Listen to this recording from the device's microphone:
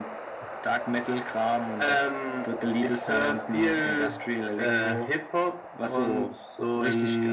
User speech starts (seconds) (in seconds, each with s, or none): none